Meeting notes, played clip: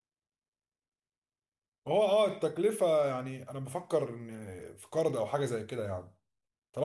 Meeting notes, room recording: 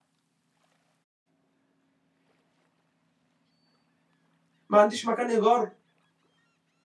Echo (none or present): none